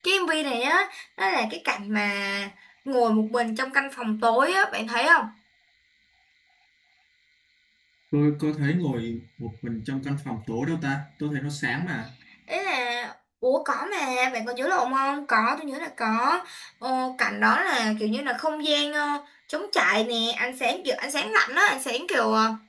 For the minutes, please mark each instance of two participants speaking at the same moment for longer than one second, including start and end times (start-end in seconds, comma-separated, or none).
none